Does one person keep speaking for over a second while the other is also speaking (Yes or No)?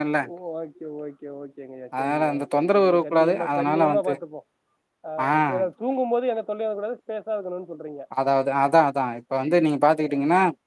Yes